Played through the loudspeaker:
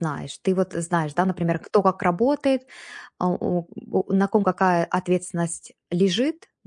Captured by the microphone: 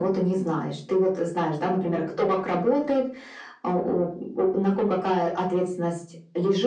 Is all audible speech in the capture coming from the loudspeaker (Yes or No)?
Yes